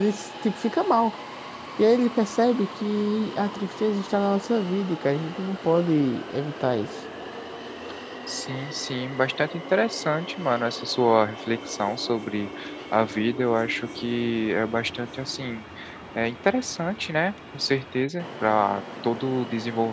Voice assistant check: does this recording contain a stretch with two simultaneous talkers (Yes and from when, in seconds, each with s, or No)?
No